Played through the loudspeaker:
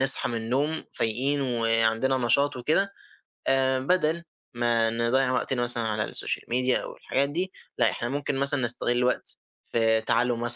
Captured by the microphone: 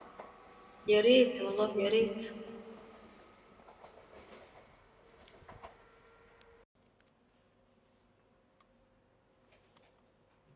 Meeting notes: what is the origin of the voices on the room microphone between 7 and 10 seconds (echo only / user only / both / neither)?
neither